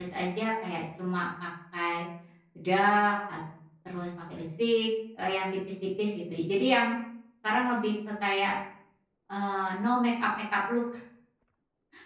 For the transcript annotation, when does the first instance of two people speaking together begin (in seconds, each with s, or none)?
none